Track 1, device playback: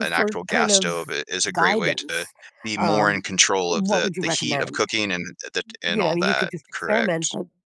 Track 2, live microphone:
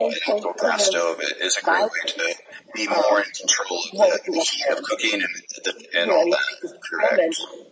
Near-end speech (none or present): none